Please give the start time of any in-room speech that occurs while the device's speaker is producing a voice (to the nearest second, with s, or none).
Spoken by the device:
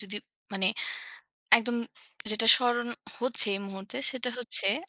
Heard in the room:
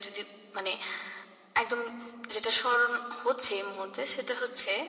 none